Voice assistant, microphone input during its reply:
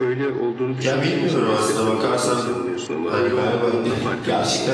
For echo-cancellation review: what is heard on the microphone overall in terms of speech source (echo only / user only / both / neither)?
both